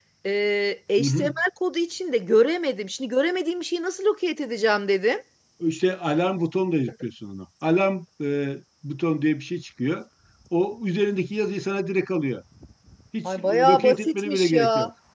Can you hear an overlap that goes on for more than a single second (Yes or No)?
Yes